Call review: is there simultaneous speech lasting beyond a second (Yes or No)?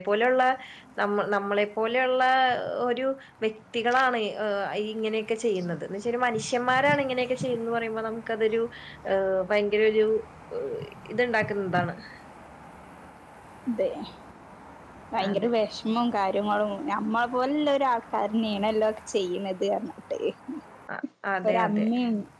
No